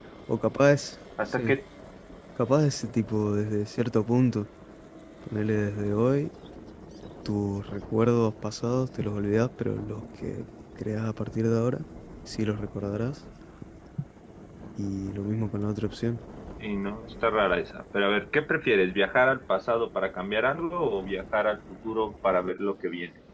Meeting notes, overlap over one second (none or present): none